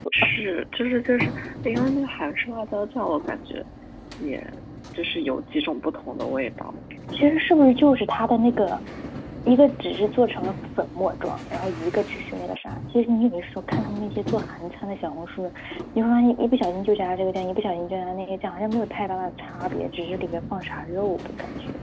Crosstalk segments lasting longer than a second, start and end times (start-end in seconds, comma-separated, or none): none